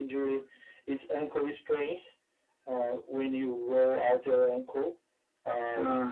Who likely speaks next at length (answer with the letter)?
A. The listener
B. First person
B